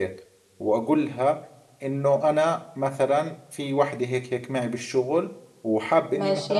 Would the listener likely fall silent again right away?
Yes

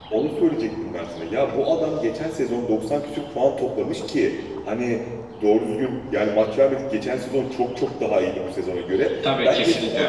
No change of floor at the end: Yes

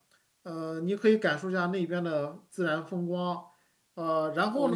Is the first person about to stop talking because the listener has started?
Yes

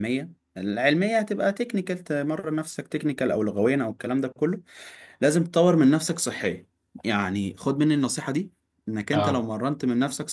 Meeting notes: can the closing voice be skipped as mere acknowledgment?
Yes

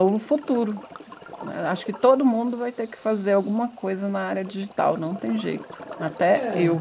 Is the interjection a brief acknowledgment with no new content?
No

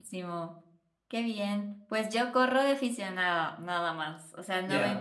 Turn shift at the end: No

